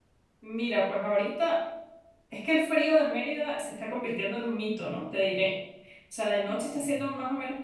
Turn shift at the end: No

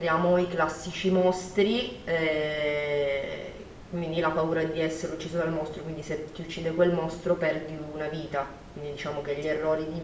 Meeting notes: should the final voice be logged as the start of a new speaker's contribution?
No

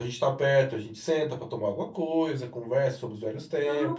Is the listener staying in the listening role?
No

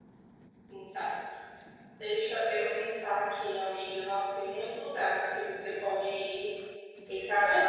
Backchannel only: No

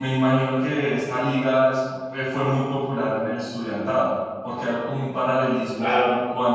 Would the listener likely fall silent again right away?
Yes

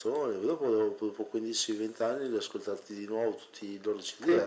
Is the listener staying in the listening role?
No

